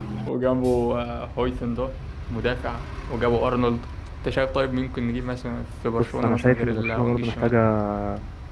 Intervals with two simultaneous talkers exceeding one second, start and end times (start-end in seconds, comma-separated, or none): 6.0-7.5